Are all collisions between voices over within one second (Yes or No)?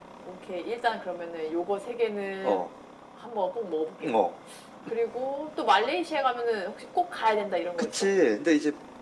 Yes